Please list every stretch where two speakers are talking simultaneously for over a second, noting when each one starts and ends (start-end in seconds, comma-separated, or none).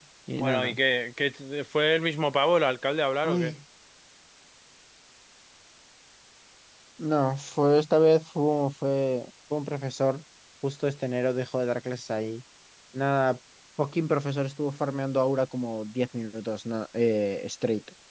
none